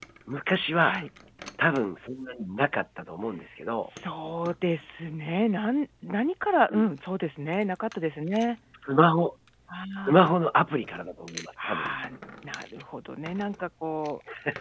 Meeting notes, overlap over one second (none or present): none